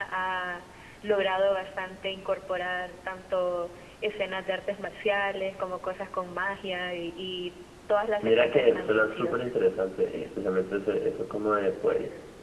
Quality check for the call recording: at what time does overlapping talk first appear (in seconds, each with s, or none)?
8.2 s